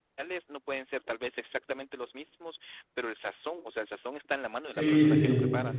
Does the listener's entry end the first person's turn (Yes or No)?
Yes